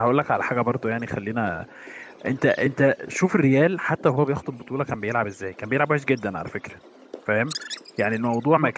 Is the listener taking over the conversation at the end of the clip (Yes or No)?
No